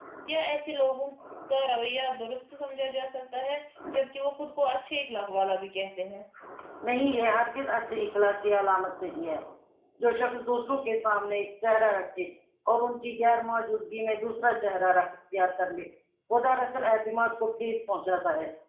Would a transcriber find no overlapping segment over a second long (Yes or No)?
Yes